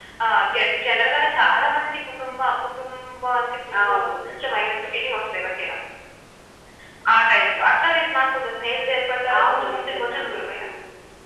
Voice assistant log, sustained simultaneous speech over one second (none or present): present